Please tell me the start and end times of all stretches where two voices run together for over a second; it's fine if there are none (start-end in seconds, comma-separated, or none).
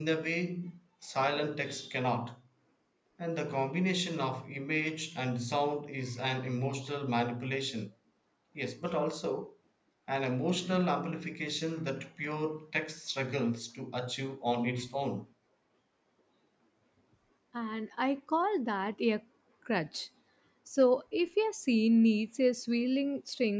none